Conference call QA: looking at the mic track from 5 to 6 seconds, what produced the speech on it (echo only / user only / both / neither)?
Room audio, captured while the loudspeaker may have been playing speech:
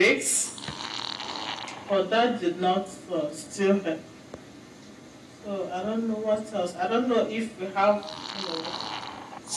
echo only